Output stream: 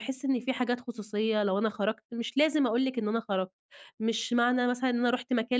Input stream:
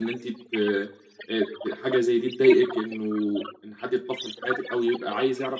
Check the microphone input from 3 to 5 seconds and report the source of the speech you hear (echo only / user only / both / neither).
both